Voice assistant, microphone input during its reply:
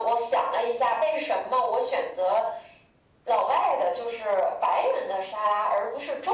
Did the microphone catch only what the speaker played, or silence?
Yes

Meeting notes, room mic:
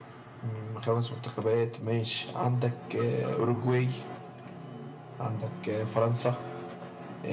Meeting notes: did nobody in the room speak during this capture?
Yes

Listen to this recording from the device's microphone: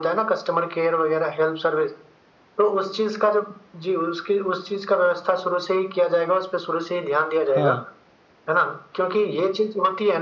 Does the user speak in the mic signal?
Yes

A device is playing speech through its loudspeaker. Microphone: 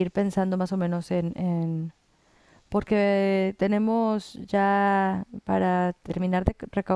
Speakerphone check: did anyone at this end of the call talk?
Yes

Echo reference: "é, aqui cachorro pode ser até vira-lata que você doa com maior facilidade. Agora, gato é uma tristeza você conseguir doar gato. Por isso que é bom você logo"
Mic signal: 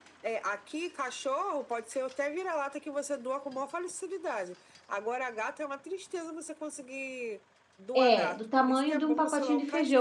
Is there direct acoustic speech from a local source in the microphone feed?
Yes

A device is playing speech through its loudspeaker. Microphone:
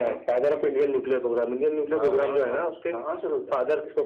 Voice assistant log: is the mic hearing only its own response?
No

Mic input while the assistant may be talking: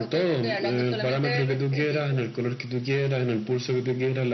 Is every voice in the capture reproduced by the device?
Yes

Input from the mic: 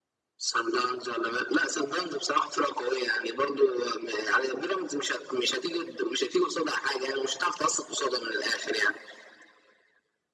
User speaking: No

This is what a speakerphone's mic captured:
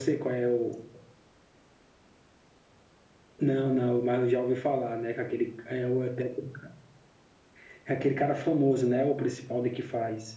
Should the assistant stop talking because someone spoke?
No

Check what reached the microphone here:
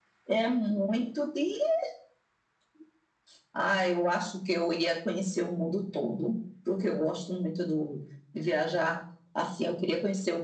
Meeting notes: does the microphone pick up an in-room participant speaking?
No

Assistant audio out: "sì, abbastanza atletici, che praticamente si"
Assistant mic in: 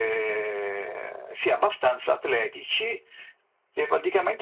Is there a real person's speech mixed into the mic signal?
No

